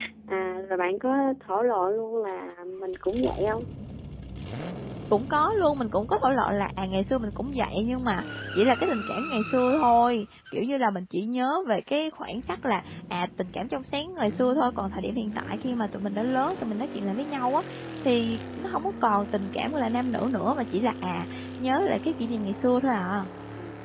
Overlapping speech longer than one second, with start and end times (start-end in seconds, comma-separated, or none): none